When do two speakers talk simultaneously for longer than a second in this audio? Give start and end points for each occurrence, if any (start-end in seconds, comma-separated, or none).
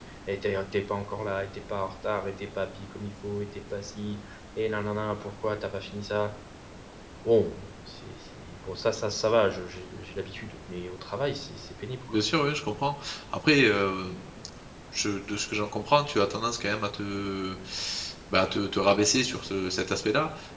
none